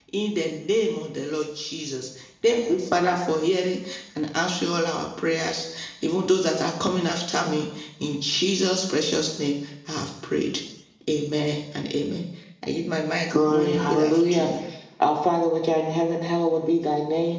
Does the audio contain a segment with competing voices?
Yes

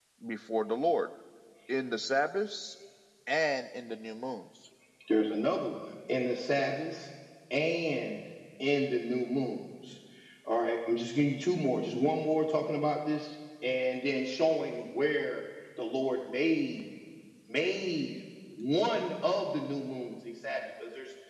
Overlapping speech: No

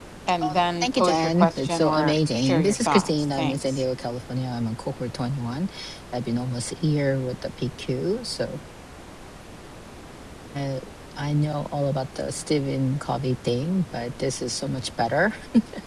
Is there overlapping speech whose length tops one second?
Yes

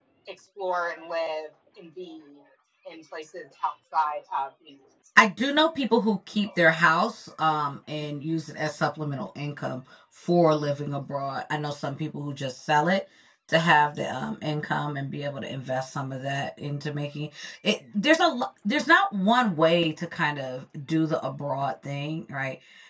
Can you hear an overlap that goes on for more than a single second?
No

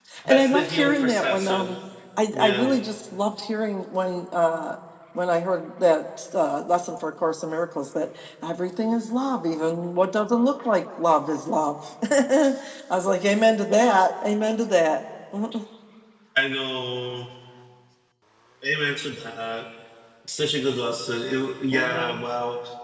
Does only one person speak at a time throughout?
No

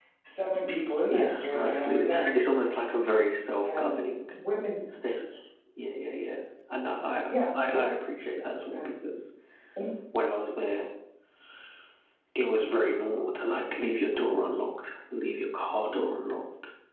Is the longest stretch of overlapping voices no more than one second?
No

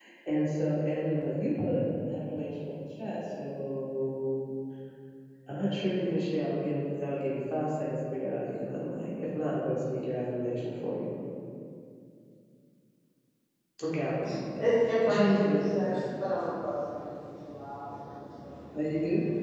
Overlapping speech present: Yes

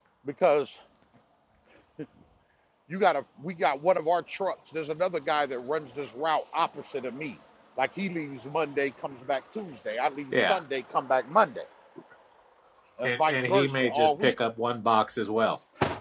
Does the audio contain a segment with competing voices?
Yes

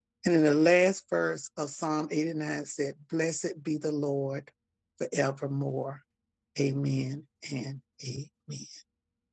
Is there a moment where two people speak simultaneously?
No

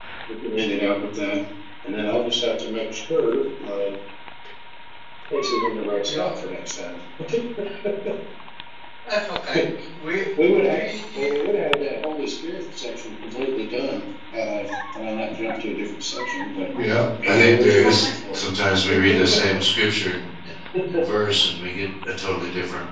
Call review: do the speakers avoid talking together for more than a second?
No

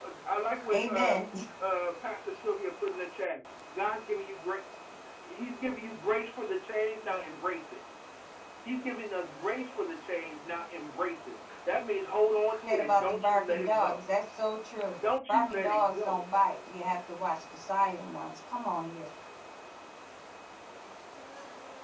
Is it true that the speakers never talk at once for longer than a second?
No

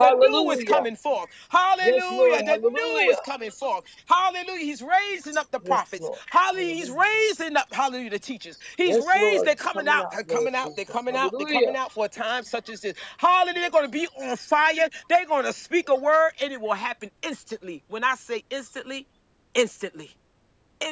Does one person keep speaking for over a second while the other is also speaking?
Yes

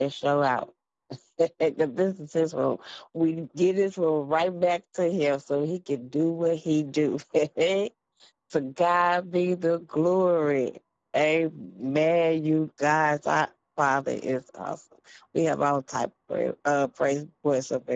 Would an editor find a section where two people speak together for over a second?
No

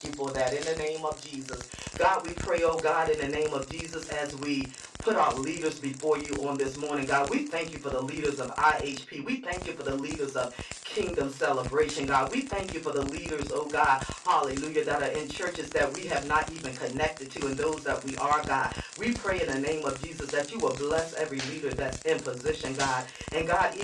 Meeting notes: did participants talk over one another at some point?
No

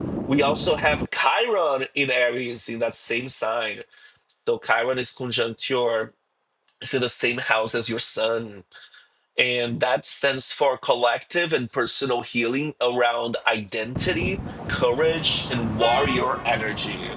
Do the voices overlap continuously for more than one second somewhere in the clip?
No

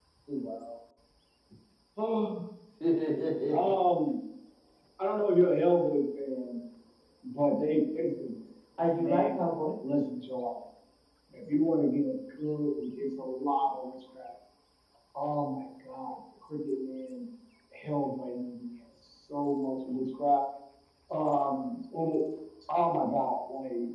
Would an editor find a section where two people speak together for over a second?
No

